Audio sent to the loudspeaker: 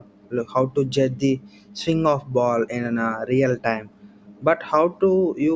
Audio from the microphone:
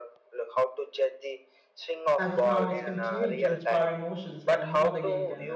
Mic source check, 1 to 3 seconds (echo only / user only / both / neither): both